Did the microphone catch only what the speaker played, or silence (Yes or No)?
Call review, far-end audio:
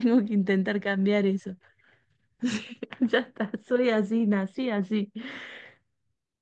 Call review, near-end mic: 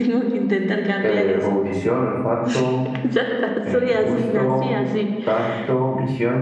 No